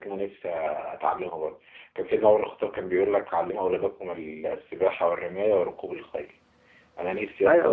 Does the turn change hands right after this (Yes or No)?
Yes